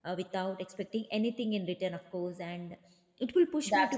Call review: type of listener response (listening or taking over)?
listening